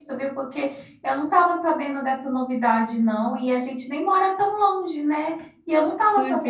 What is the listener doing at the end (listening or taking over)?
listening